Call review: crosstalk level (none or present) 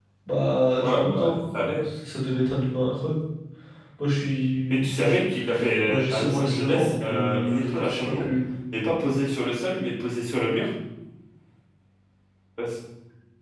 present